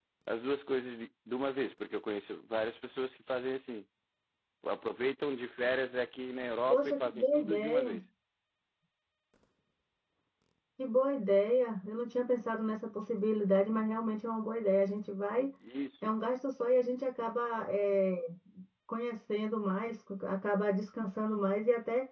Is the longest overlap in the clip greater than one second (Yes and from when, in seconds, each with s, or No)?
Yes, from 6.7 s